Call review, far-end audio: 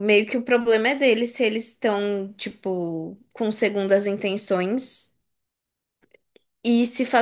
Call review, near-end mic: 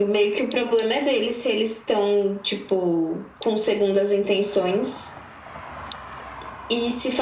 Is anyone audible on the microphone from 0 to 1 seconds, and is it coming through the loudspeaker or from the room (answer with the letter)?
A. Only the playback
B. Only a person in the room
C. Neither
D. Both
A